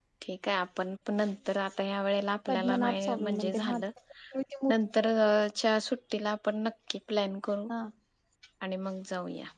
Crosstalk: present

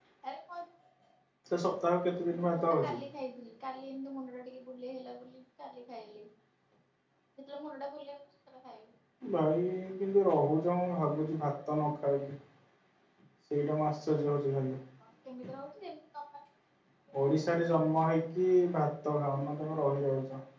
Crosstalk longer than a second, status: none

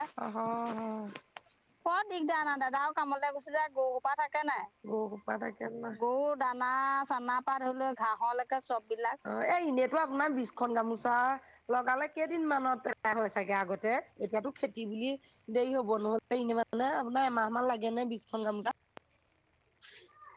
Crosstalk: none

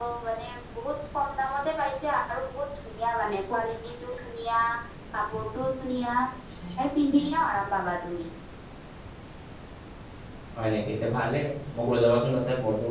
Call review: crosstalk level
none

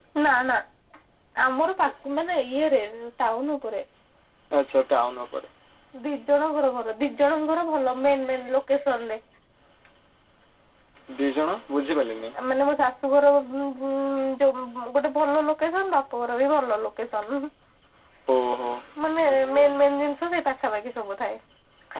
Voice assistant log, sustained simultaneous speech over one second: none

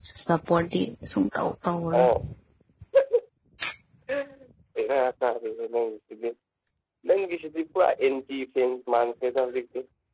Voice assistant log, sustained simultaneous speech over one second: none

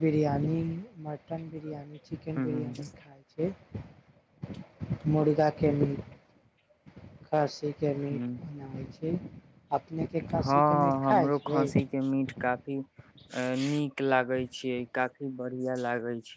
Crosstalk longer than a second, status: present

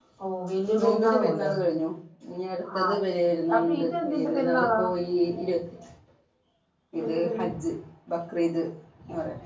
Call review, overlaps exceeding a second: present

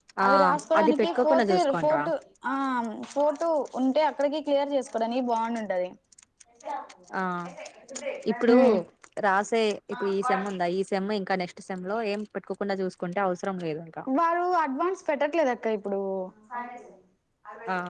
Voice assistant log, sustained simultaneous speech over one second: present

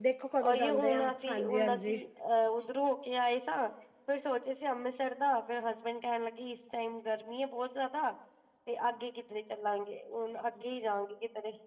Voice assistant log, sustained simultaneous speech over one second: present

